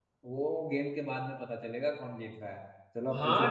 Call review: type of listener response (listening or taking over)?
taking over